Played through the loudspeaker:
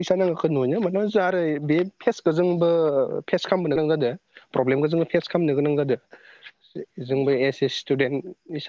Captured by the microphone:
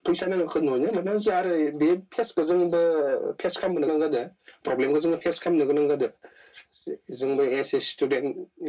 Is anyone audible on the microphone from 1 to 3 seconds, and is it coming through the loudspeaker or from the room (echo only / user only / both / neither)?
echo only